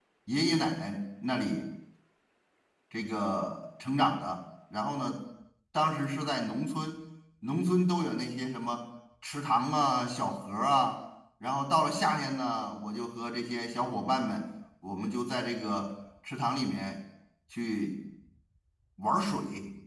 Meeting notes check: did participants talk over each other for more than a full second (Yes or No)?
No